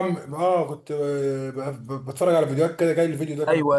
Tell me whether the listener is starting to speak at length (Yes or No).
Yes